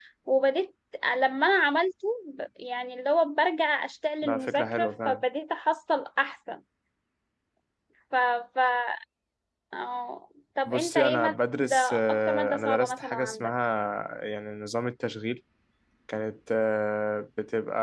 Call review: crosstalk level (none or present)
present